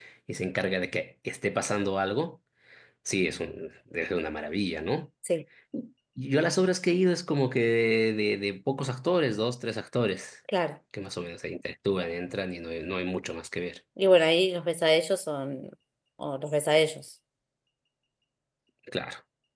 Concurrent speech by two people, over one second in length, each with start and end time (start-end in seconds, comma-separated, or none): none